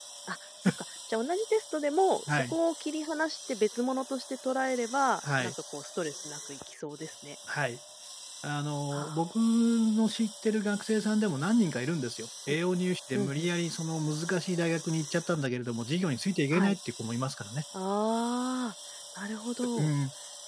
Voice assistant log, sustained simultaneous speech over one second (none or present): none